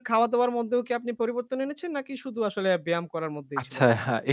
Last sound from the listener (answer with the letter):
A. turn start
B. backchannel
A